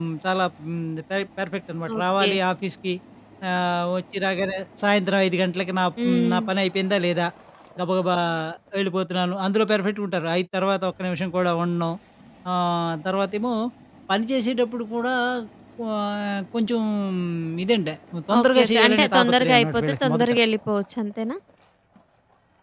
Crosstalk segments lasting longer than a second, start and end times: 18.4-20.3

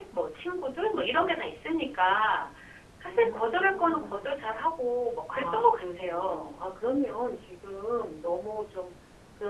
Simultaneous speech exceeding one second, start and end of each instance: 3.1-4.7, 5.3-6.6

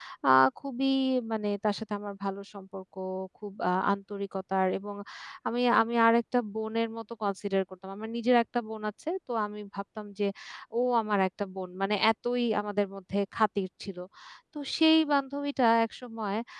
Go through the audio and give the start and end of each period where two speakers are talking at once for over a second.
none

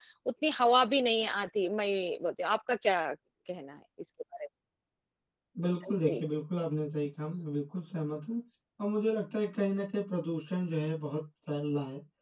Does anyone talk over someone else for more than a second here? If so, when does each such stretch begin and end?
none

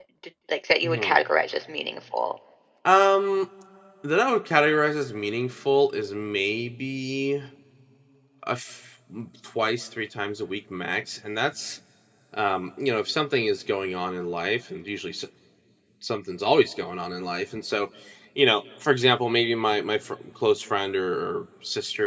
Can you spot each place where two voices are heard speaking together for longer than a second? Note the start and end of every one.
none

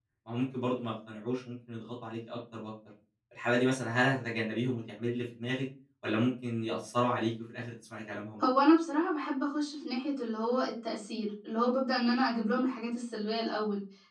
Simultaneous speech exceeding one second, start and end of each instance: none

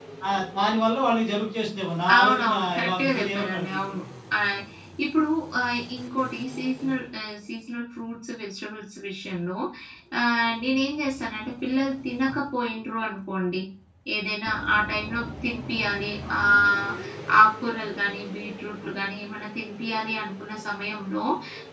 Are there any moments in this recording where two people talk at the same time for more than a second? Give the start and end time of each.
2.2-4.0

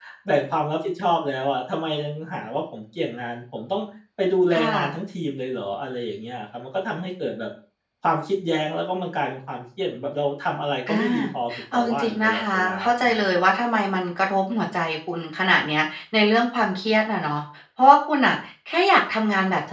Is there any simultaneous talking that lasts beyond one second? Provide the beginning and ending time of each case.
11.7-13.2

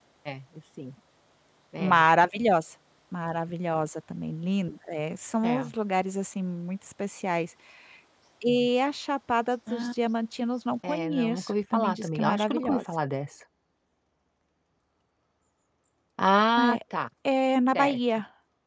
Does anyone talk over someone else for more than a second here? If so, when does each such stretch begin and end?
10.8-12.8

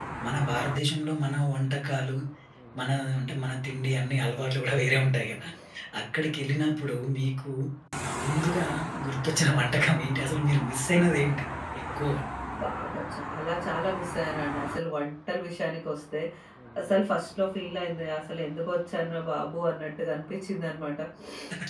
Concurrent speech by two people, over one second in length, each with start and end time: none

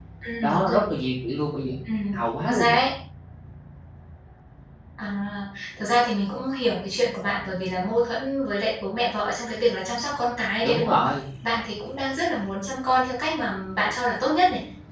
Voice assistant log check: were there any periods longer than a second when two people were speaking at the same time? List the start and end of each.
none

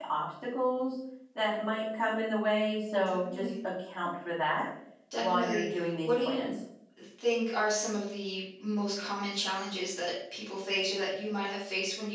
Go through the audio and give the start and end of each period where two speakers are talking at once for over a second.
5.2-6.5

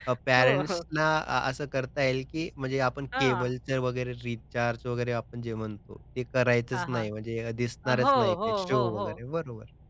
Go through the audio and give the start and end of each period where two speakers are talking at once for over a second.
7.8-9.1

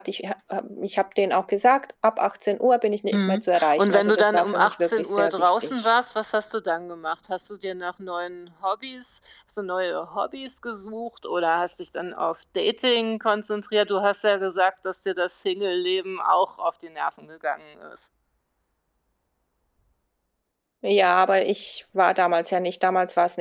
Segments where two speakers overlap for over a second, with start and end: 3.1-5.9

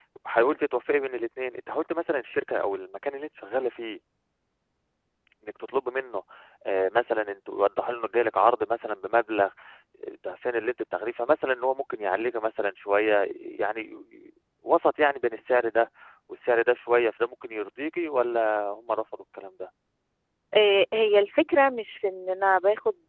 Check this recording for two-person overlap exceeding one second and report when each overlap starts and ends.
none

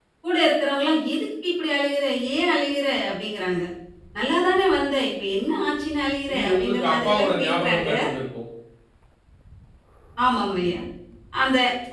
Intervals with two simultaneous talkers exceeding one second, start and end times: 6.3-7.9

